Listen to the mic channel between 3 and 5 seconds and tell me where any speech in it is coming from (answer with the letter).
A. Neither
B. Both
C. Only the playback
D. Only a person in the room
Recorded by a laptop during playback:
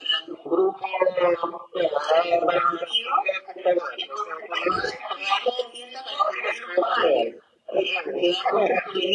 C